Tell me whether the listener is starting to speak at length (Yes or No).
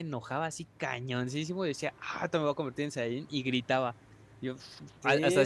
Yes